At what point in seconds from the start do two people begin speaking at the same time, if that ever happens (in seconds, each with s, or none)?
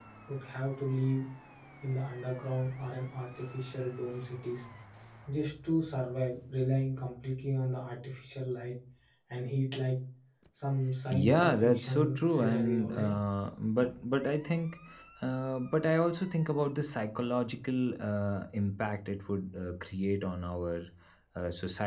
11.1 s